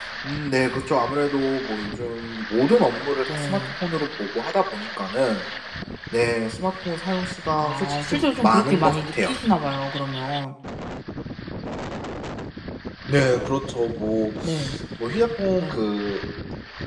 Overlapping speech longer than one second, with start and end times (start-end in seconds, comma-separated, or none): 7.6-9.3